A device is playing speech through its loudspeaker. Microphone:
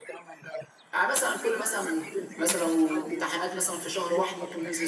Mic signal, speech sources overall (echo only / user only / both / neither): both